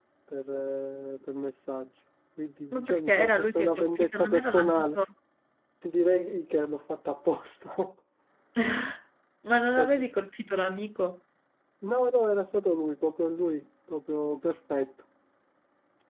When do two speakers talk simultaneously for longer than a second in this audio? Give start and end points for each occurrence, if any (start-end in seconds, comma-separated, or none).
2.7-5.0